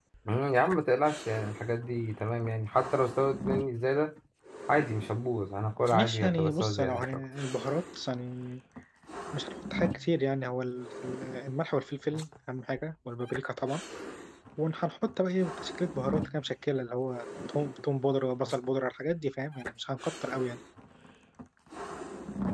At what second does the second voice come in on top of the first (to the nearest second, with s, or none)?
6 s